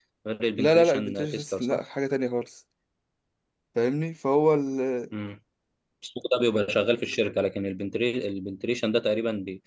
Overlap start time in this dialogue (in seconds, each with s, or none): 0.6 s